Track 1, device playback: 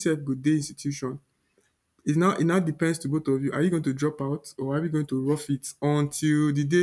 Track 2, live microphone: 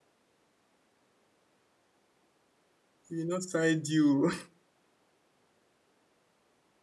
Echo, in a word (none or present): none